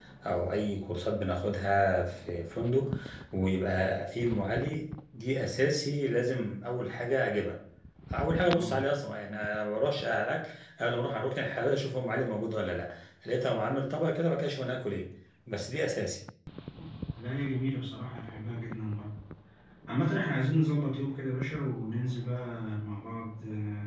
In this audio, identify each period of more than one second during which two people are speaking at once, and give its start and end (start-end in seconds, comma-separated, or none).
none